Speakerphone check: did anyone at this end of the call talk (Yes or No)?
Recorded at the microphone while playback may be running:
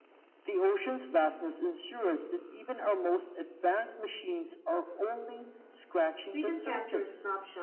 Yes